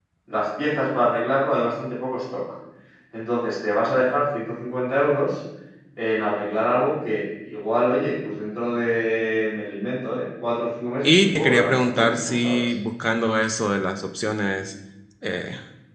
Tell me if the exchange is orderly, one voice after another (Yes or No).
No